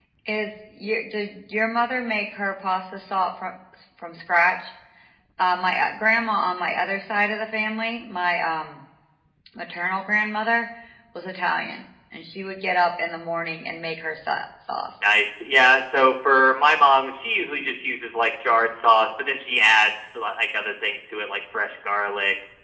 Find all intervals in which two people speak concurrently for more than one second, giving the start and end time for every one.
none

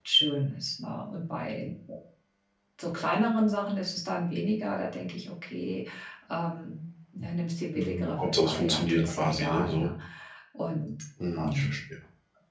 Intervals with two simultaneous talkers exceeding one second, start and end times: 7.7-9.9

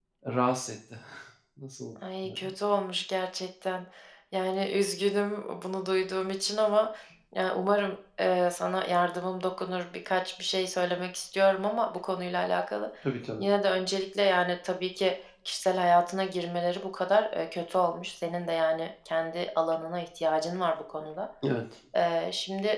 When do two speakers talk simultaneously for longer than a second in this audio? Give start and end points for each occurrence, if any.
none

